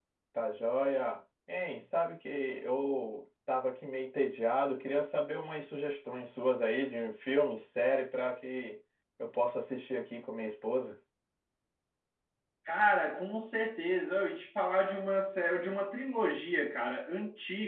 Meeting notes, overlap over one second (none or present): none